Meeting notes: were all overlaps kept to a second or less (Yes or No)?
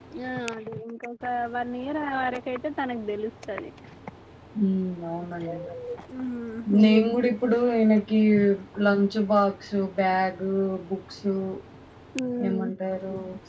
Yes